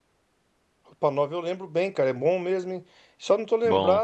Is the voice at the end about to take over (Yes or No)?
No